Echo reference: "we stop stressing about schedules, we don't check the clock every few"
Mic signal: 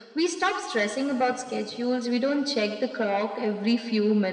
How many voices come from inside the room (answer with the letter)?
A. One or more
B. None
B